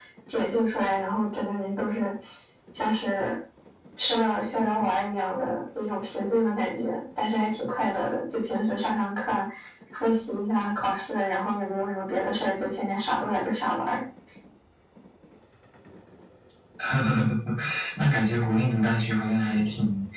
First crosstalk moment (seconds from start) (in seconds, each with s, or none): none